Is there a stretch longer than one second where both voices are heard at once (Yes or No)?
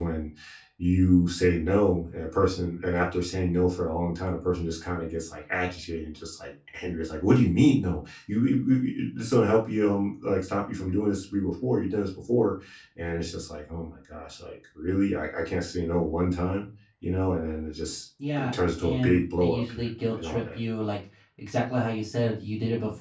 Yes